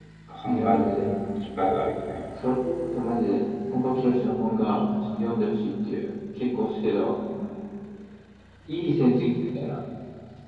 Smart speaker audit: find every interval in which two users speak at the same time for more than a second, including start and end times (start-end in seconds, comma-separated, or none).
none